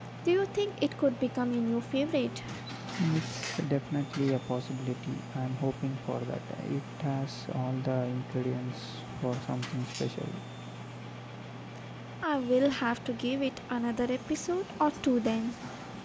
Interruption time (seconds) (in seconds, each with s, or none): none